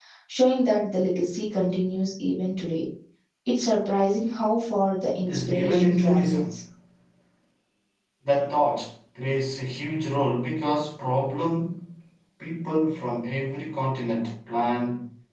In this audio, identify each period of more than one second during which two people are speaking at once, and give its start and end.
5.2-6.6

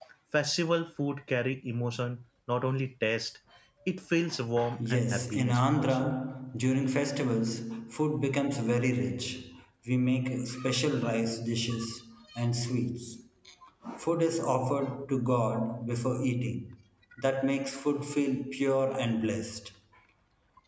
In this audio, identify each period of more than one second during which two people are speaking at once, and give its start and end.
4.8-6.1

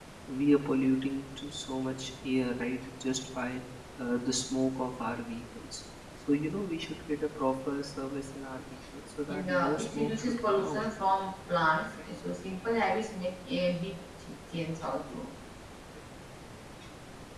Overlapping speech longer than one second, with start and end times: 9.3-10.8

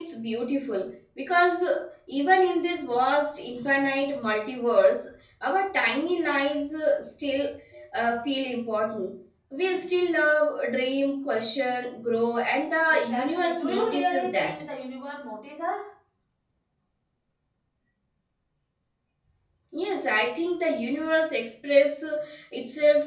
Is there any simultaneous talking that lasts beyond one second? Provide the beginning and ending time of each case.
12.9-14.6

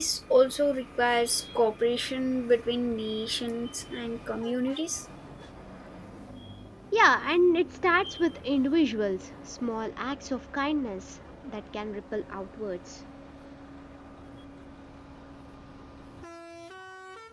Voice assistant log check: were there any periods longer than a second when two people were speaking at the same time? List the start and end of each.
none

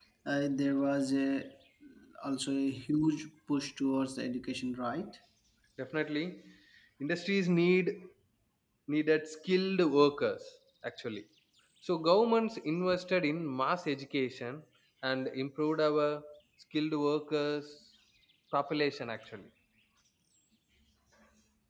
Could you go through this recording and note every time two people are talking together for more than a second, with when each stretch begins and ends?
none

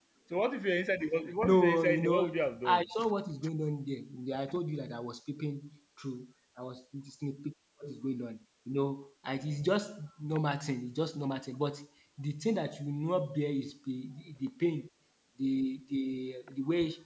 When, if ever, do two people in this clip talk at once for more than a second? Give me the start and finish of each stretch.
1.4-2.9

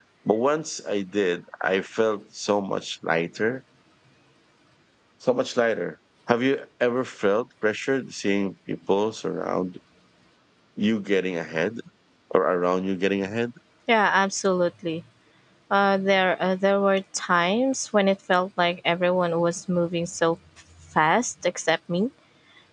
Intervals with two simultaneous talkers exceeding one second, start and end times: none

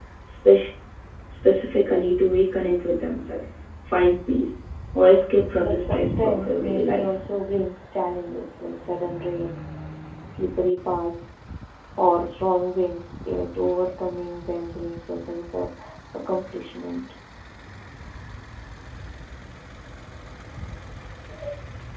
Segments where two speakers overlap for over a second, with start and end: 5.6-7.0

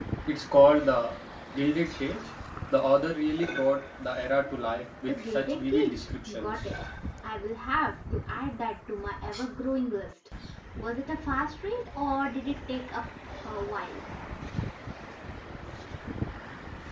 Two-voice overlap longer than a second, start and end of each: 5.1-6.5

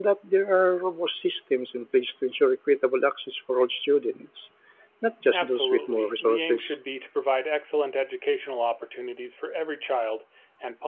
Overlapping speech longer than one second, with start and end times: 5.3-6.8

